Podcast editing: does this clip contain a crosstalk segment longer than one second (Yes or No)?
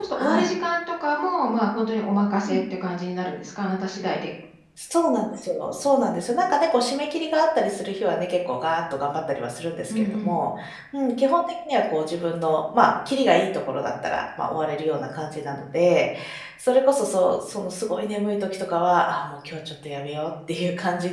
No